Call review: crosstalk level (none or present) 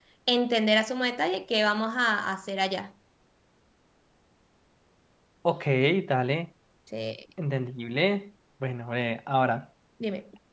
none